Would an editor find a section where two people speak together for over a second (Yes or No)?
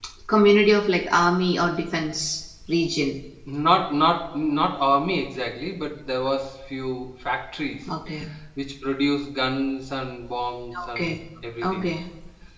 No